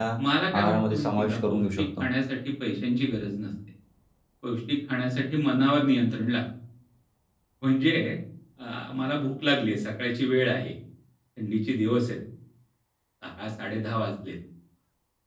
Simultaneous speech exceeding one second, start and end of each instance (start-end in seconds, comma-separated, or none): 0.6-2.1